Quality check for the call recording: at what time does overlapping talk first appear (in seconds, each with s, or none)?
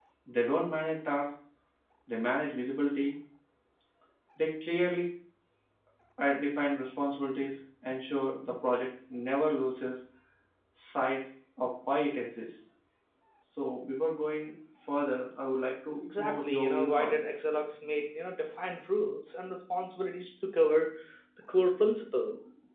16.1 s